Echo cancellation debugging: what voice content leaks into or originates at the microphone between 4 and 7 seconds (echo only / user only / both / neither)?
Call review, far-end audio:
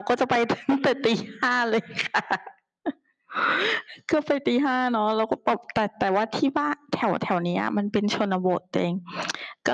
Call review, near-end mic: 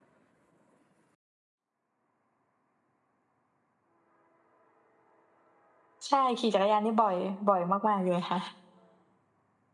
user only